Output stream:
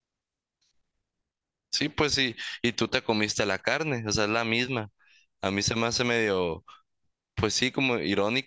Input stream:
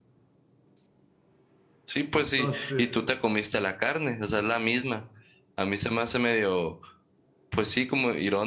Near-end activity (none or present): present